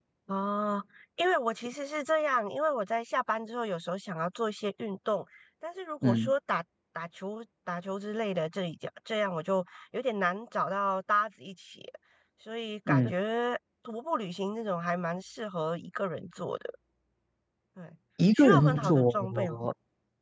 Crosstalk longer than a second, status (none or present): present